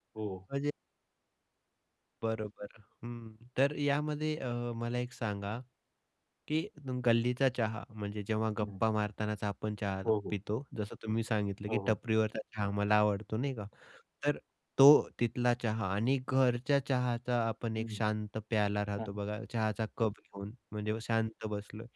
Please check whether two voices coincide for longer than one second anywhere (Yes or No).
No